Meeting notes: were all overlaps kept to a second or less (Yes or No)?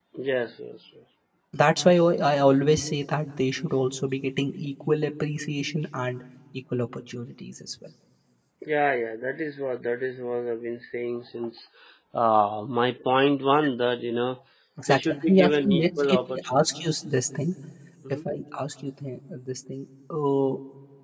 No